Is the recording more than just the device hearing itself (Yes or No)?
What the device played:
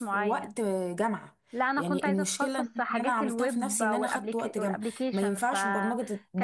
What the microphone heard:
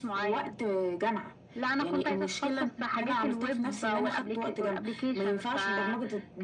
No